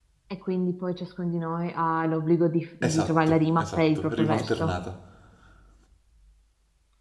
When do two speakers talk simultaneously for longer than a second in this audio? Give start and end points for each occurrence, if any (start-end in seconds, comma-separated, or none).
2.8-4.7